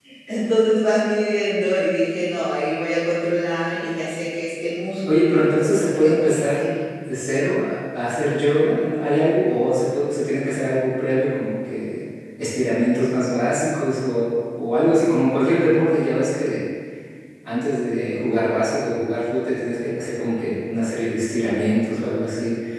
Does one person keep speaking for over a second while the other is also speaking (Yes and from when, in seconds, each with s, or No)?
Yes, from 5.0 s